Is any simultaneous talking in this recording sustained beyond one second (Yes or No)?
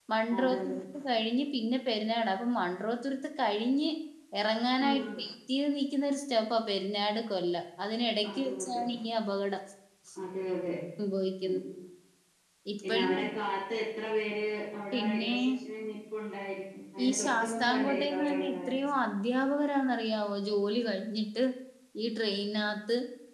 Yes